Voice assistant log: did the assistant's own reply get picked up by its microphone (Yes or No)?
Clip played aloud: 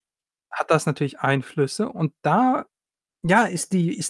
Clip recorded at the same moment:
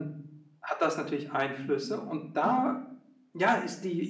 Yes